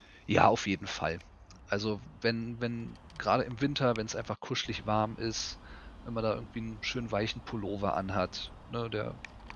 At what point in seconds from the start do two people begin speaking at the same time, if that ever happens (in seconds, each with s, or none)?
none